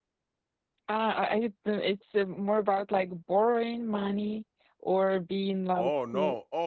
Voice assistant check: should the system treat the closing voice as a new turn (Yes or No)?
Yes